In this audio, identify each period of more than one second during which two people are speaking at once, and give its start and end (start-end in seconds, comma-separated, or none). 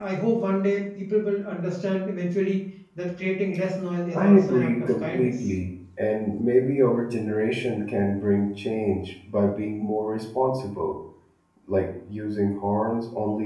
4.2-5.5